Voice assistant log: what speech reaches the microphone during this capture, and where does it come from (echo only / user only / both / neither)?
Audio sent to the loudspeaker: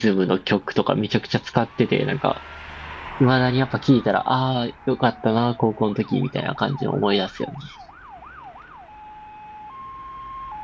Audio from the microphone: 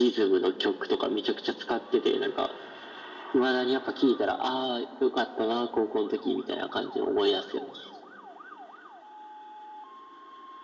echo only